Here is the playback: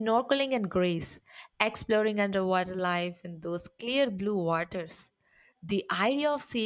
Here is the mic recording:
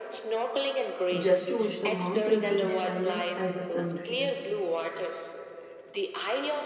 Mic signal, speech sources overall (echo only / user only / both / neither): both